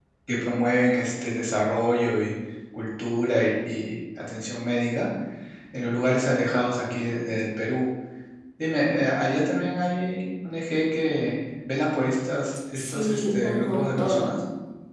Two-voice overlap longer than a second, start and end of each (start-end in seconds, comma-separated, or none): 12.8-14.3